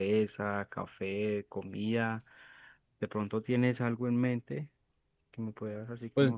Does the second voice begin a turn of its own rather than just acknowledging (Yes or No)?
Yes